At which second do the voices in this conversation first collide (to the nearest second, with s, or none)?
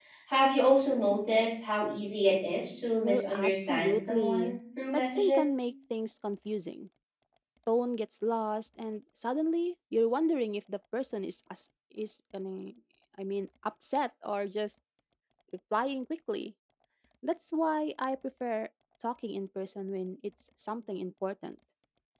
3 s